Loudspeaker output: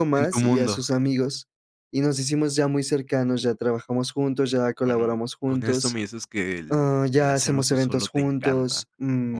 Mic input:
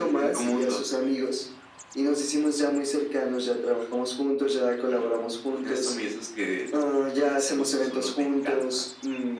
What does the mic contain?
echo only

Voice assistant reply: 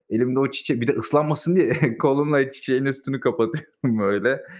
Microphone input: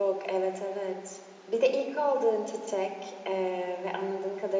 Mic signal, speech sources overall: user only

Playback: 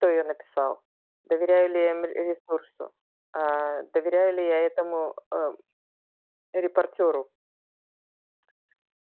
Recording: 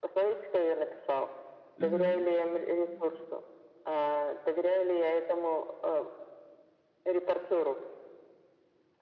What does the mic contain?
both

